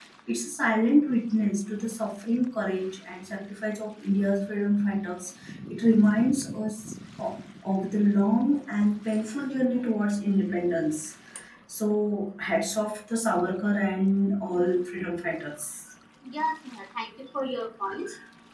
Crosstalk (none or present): none